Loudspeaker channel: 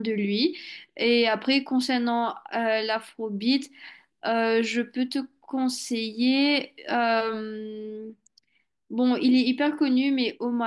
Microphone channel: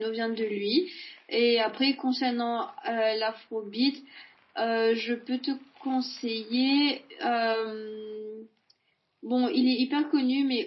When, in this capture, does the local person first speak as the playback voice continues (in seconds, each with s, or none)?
none